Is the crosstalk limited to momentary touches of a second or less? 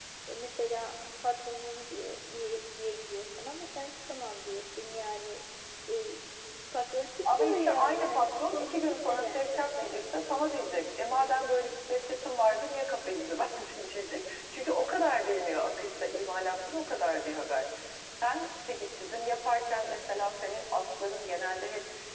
No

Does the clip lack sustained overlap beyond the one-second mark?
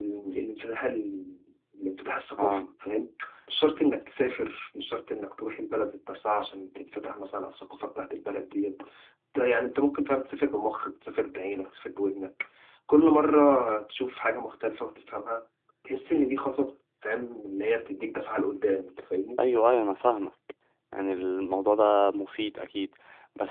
Yes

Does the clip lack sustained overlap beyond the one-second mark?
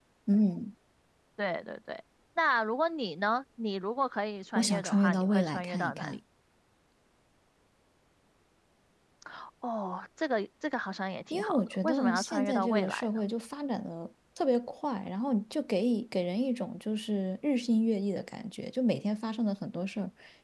No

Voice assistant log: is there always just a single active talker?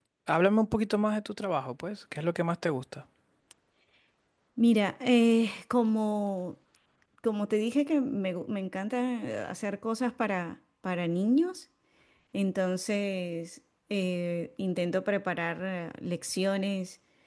Yes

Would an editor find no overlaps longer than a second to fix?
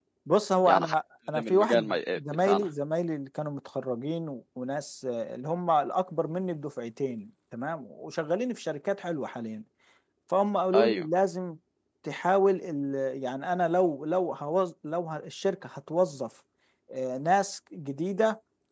No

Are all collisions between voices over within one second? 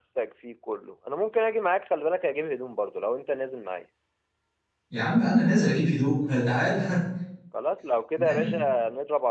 Yes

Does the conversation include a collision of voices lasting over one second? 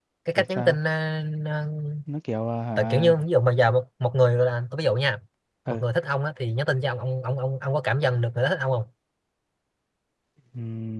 No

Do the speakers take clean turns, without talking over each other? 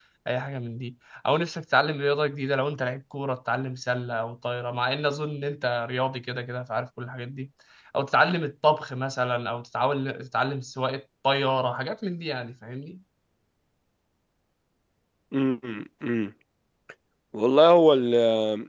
Yes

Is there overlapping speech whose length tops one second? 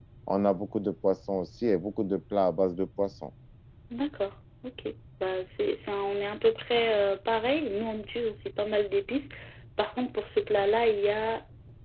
No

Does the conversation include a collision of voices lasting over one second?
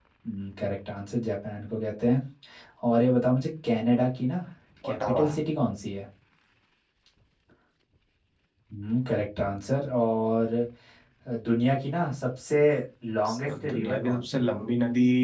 Yes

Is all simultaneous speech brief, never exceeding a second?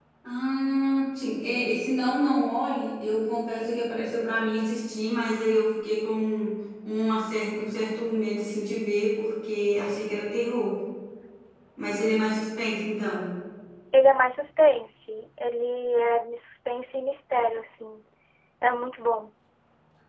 Yes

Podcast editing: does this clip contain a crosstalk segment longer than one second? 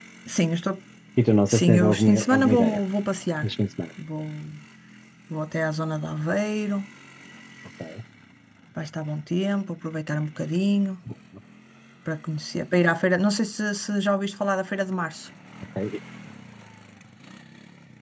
Yes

